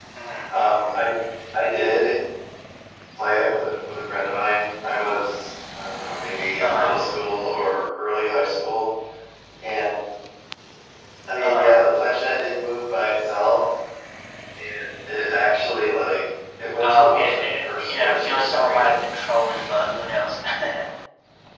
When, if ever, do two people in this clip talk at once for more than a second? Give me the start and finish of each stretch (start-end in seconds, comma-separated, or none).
16.8-19.0